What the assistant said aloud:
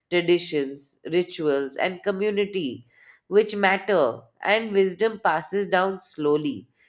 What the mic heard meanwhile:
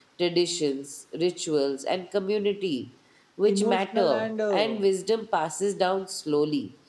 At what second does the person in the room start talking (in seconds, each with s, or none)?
3.4 s